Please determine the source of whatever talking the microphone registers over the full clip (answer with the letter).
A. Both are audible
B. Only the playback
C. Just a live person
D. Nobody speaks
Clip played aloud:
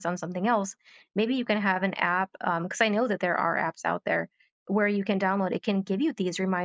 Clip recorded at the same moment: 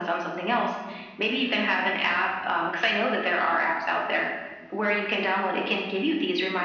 B